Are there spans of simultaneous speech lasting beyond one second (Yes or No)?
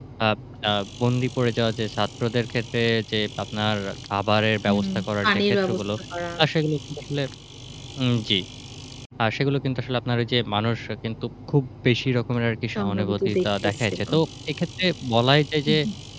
Yes